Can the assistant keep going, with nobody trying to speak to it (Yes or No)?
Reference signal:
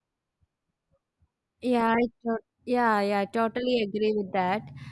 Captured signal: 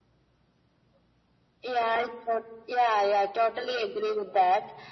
Yes